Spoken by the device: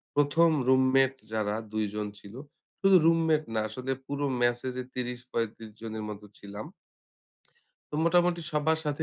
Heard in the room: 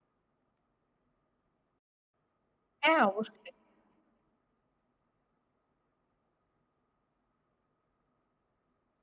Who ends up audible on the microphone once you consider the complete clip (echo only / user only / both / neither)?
user only